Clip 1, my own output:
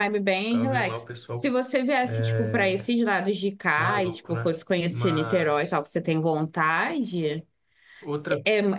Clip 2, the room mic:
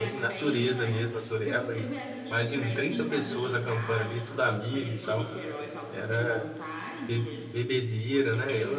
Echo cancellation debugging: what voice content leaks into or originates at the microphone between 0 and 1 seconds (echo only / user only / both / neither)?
both